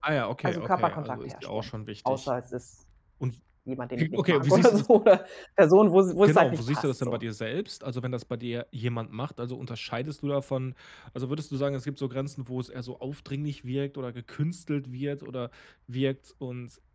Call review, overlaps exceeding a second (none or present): present